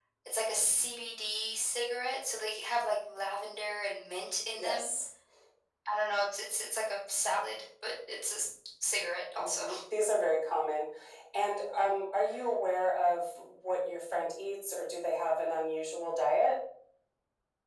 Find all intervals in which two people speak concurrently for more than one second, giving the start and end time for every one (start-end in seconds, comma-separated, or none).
none